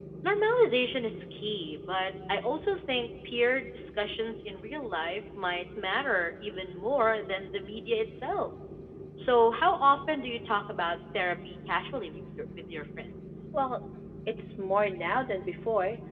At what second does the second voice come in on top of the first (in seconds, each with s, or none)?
none